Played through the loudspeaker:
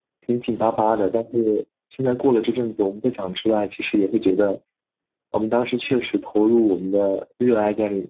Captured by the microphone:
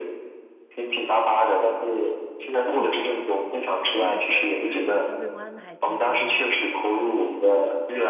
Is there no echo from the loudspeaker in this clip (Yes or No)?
No